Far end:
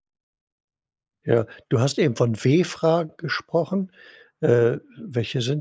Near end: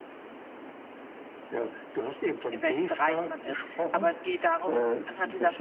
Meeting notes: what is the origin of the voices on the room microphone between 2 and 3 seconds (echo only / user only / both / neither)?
both